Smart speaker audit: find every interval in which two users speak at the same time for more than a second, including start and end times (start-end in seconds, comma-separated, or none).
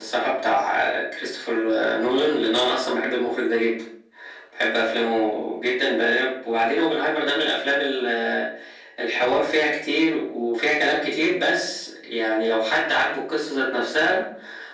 none